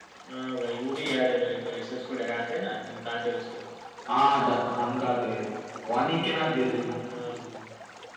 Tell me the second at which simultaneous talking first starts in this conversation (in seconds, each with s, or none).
none